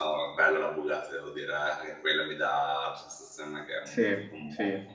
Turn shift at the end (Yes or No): No